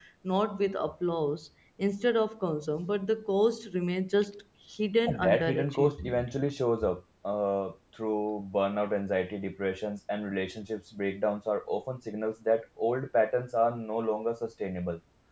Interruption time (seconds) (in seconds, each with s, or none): 5.1 s